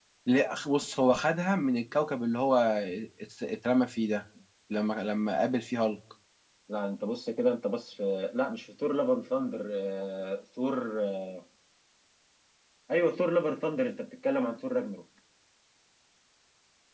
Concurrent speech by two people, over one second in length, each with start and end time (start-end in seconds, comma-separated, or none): none